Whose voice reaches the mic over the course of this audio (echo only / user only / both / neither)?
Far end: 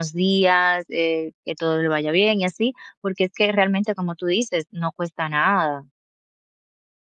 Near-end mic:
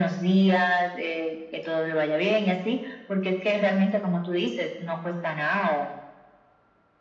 echo only